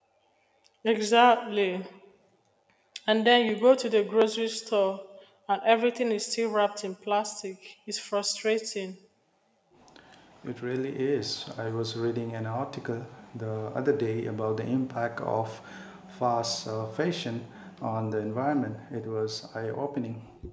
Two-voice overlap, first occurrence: none

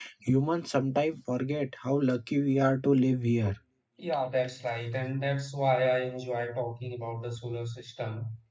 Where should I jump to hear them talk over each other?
none

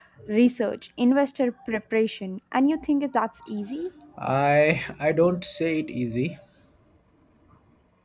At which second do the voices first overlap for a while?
none

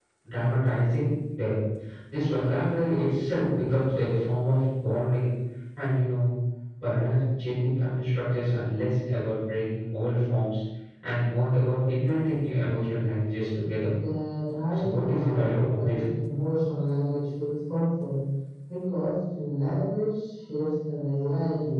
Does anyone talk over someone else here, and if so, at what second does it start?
15 s

